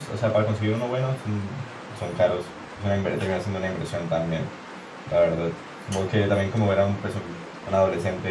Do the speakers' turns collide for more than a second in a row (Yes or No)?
No